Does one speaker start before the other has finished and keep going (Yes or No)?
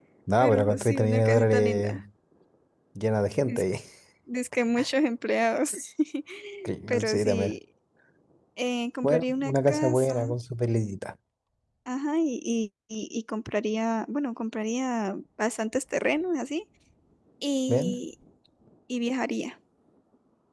Yes